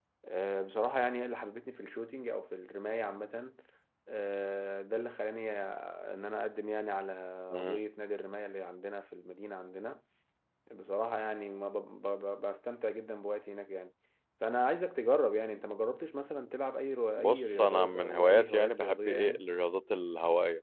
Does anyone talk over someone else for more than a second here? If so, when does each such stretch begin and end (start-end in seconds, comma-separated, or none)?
17.2-19.5